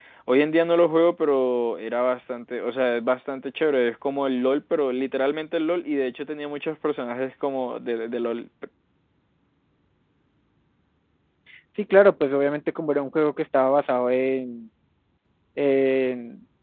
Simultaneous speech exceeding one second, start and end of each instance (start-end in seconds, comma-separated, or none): none